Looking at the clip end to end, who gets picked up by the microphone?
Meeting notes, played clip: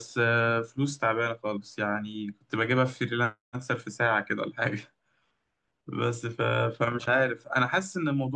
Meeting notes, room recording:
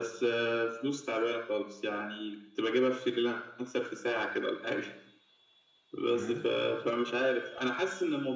both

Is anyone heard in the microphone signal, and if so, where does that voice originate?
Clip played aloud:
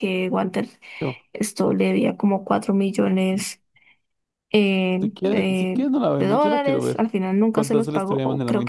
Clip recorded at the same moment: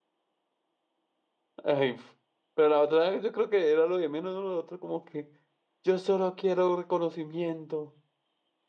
user only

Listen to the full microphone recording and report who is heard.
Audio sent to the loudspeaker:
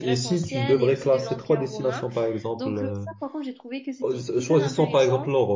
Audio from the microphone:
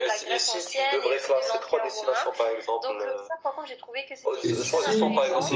both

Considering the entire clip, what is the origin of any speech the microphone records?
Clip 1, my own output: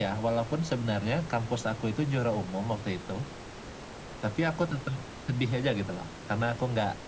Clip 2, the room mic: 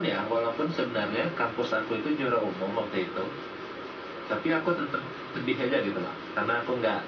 echo only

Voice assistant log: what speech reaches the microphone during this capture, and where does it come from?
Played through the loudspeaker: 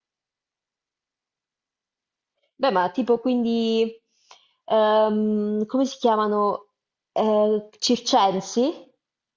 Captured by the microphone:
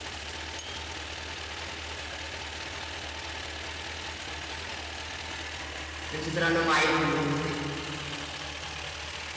user only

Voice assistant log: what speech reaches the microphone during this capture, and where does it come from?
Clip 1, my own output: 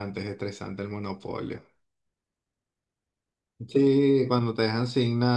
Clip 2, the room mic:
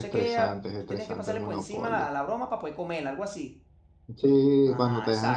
both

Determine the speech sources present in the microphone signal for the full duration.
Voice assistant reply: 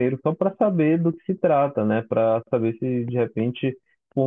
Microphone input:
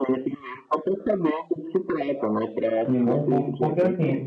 both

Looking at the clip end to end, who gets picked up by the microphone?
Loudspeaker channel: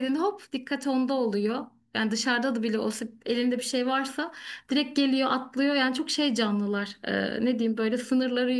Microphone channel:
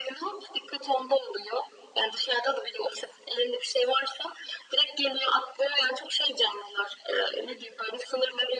echo only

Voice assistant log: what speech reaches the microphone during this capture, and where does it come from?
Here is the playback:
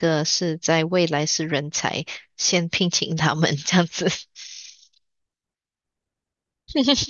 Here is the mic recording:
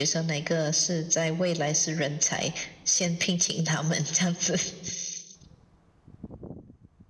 echo only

